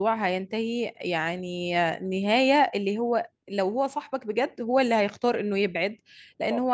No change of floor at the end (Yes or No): Yes